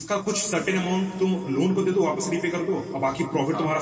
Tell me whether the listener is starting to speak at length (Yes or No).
No